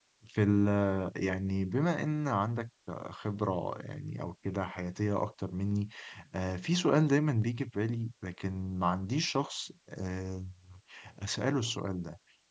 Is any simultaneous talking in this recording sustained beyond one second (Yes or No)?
No